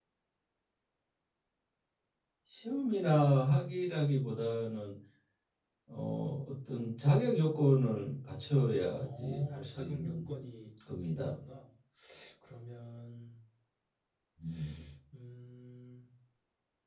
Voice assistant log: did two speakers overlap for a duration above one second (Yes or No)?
Yes